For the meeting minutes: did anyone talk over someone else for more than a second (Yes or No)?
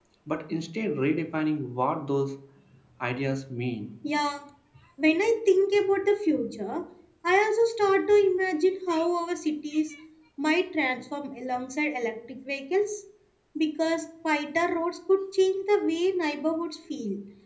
No